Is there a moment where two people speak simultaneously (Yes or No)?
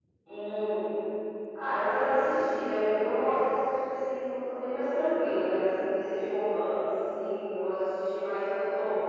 No